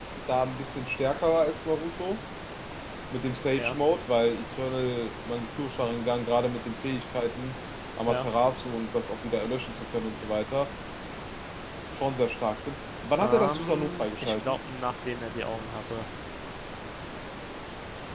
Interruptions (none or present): present